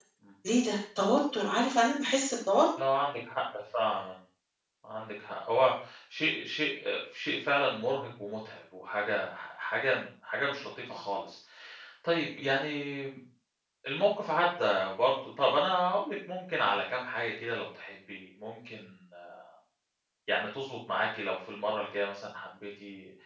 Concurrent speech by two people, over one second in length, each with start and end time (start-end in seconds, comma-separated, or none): none